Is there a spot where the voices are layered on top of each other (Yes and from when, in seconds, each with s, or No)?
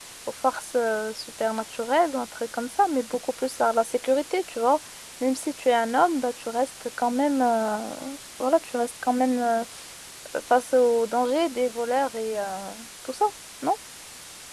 No